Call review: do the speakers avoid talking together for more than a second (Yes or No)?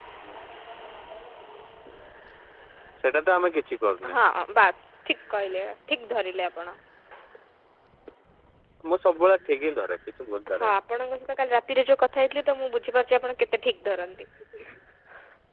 Yes